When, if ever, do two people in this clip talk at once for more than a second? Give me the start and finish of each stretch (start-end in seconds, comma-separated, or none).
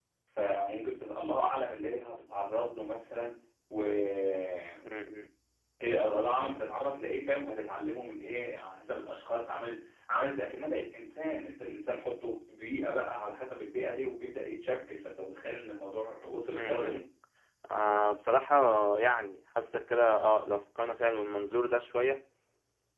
none